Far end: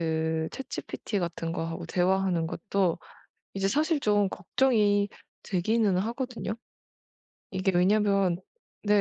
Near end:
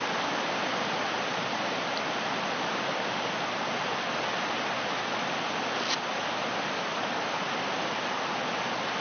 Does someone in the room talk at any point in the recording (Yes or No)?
No